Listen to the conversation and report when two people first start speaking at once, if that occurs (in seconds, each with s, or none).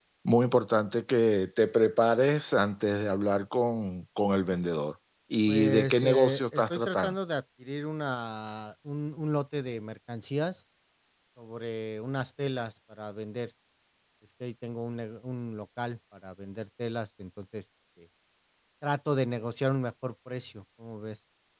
5.5 s